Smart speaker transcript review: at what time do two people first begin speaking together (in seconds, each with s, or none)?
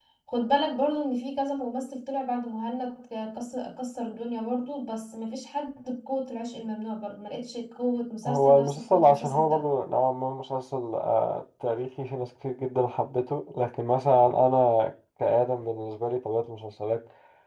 8.2 s